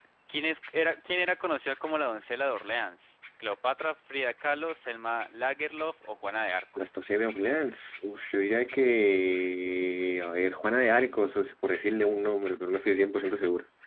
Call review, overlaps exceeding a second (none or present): none